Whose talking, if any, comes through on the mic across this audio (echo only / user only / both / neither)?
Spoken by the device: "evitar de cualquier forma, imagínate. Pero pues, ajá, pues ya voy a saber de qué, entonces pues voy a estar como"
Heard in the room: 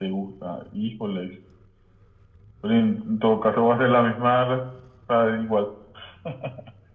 user only